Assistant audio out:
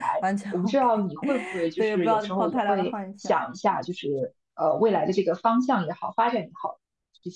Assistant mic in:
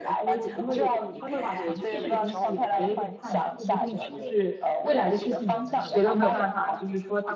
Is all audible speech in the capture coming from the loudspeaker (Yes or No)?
No